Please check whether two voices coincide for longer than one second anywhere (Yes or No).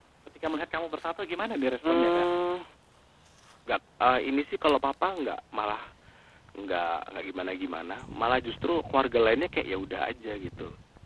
No